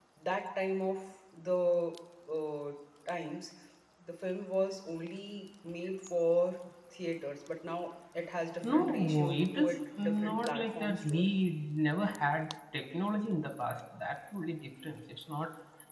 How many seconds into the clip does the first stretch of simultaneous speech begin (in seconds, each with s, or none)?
8.6 s